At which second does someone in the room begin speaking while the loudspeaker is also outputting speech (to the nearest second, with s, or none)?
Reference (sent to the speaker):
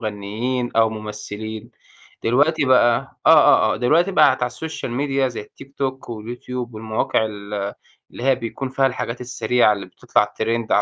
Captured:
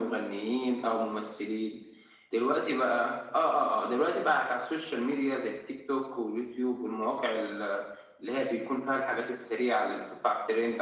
none